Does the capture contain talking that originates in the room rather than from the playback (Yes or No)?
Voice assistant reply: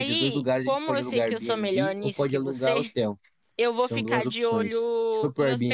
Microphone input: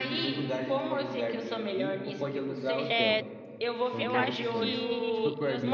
Yes